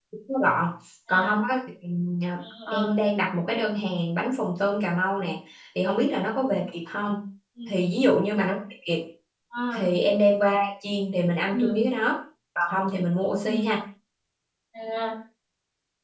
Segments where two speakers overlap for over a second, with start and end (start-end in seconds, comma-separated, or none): none